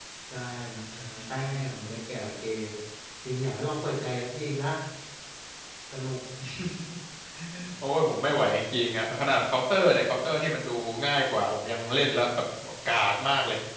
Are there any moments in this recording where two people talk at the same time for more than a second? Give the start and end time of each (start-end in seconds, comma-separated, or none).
none